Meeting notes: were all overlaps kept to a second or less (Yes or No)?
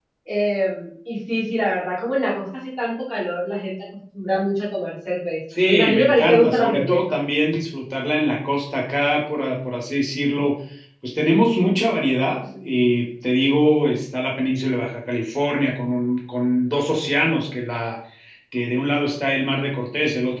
No